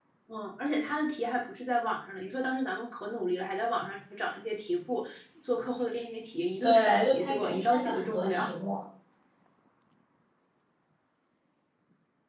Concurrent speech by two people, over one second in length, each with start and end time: 6.6-8.5

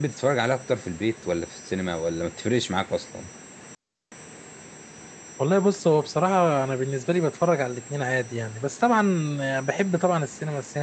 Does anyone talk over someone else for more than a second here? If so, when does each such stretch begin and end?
none

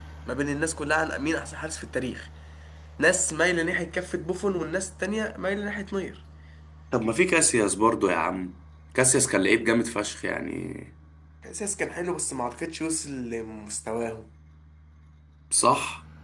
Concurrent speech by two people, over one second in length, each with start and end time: none

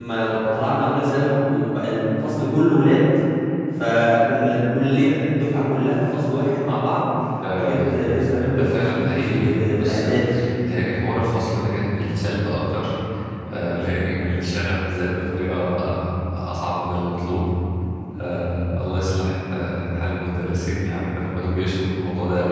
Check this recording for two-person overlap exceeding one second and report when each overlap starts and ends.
8.6-10.1

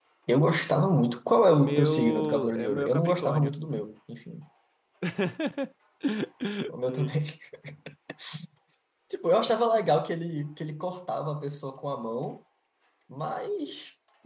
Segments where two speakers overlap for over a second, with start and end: 1.5-3.5

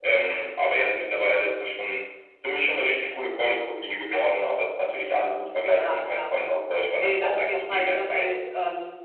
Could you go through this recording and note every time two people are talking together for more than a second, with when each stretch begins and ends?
7.0-8.3

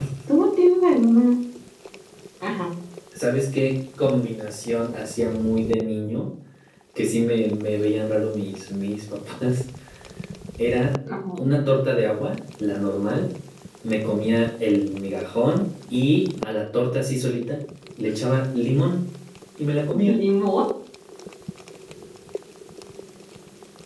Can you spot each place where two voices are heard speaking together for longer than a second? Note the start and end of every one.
none

